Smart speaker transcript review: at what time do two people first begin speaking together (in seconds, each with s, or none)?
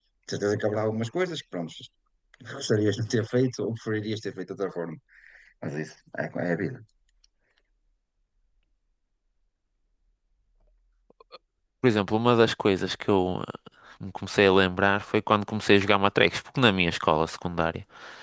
none